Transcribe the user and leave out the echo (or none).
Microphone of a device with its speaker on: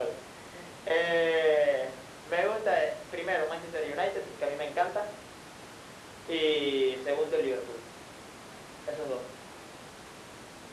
none